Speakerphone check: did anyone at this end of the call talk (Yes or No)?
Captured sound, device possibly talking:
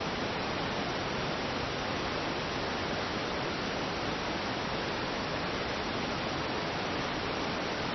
No